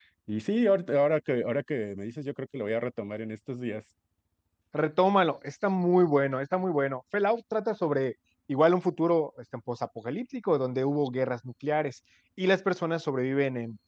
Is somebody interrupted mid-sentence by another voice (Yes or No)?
No